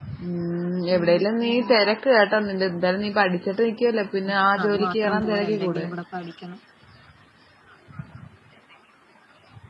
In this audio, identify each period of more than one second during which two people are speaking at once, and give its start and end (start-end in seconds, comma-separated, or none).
4.7-5.9